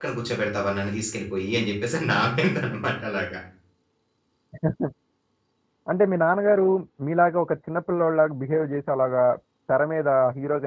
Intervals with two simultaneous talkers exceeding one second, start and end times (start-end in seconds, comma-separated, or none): none